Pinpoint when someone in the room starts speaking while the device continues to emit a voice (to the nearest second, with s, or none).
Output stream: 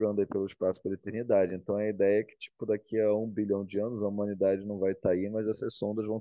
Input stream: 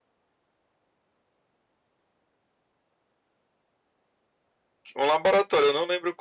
5 s